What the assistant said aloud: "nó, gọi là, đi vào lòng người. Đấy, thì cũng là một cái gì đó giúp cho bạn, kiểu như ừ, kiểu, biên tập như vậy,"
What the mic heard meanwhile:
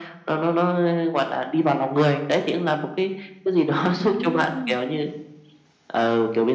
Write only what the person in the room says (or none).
À!